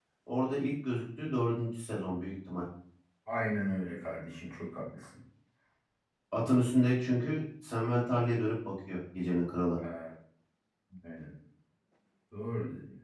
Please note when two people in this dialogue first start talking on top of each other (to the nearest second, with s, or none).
none